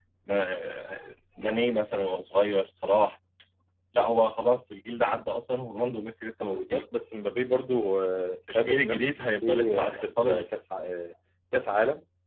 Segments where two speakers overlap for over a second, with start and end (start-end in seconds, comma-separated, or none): 8.5-10.5